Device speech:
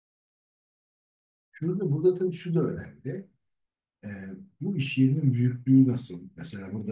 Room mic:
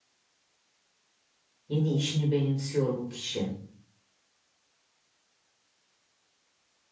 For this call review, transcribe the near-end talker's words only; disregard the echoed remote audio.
yeni işini benimsiyor bu kişi.

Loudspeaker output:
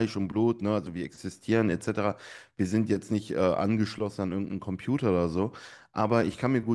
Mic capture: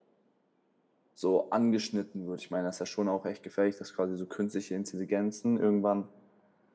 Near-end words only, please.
so angeschnitten wird? Ich meine, das ist ja schon auch echt gefährlich, dass quasi so künstliche Intelligenzen irgendwann

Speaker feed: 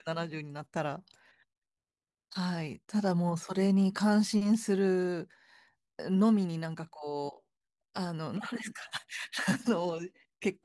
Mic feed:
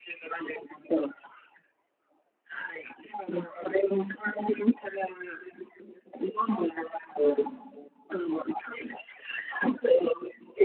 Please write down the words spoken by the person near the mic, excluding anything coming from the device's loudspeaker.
はい。

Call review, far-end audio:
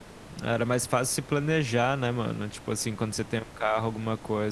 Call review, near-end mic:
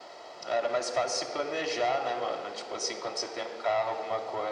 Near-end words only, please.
none

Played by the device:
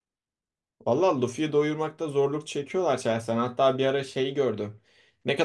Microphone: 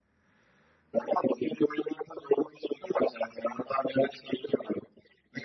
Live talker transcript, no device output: none

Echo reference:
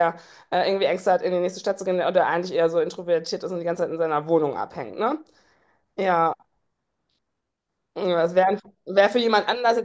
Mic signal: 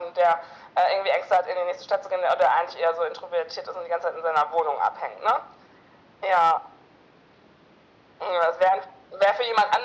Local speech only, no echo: none

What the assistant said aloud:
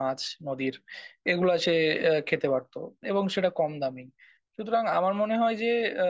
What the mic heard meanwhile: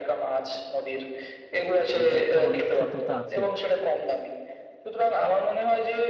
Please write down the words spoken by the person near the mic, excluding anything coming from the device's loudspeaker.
তো এটা তো অনেক সত্যতা আছেই

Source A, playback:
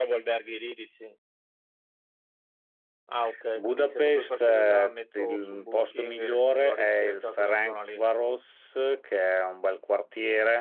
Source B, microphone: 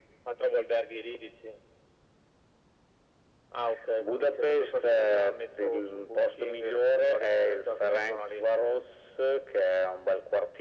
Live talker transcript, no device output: none

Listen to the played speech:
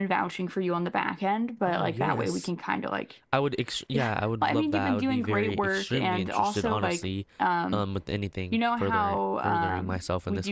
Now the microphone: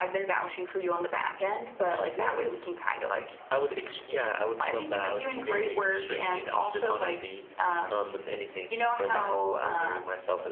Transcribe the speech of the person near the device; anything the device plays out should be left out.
none

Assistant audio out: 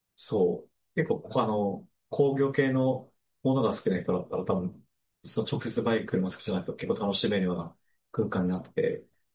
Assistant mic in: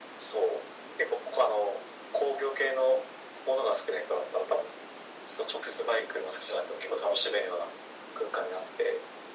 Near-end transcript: none

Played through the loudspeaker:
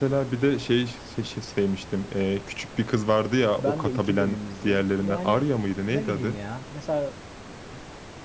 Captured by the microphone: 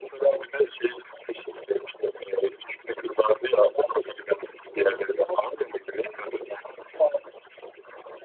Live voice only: none

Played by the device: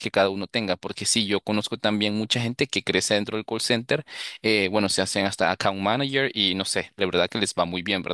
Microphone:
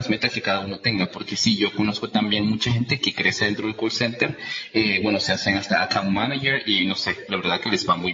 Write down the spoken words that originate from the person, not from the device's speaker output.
none

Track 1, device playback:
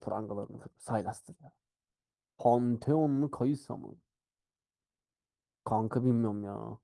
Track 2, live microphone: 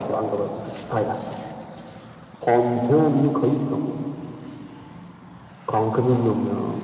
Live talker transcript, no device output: none

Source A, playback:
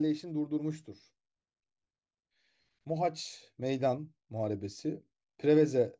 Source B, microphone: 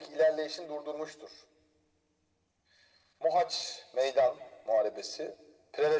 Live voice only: none

